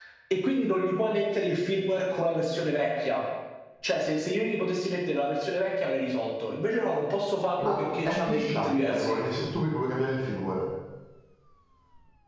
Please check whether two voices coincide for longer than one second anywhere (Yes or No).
Yes